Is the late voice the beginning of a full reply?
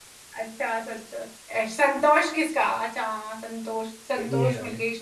No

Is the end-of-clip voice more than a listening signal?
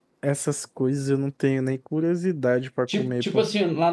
Yes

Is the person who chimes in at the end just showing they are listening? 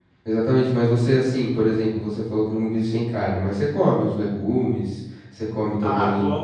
No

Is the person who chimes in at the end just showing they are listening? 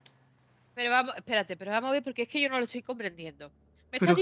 Yes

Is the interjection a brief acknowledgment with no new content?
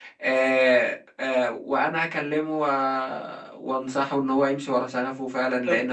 Yes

